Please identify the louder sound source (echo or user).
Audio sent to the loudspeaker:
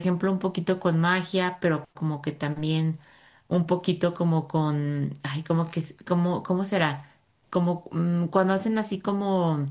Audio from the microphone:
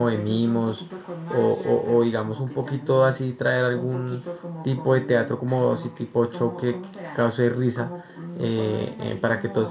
user